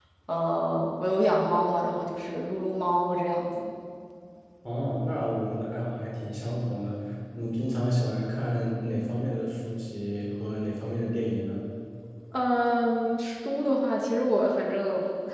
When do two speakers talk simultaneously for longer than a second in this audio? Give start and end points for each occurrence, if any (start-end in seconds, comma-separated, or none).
none